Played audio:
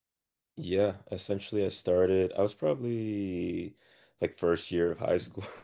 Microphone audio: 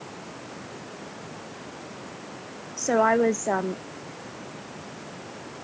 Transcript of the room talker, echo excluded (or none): So I was um